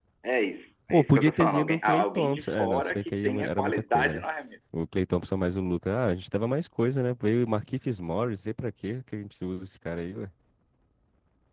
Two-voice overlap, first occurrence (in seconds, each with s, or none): 0.9 s